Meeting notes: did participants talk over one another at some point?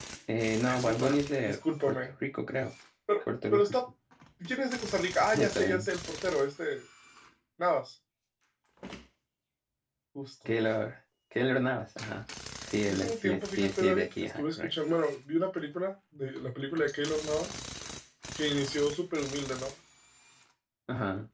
Yes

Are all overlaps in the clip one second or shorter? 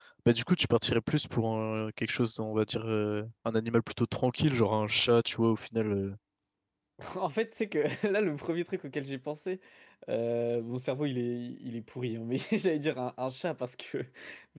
Yes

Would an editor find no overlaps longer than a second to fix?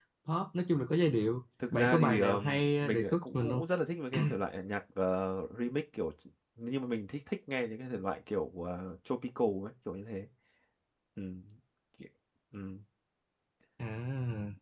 No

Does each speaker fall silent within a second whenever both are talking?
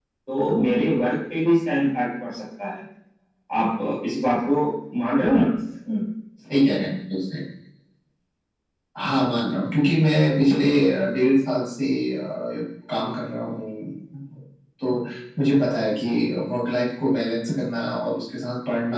Yes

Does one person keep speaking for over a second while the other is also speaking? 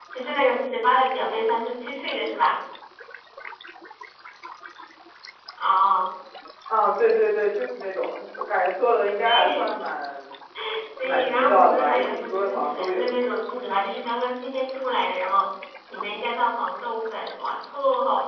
Yes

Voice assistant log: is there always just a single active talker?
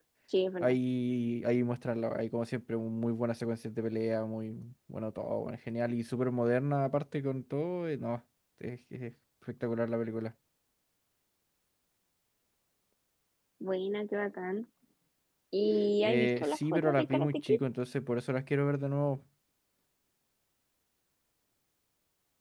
No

